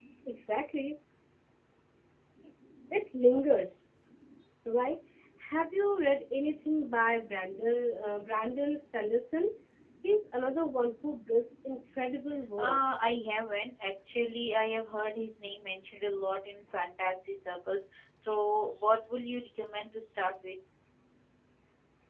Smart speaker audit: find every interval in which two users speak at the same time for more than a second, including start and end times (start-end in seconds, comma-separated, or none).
none